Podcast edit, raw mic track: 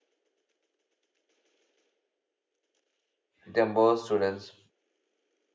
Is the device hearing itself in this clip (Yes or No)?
No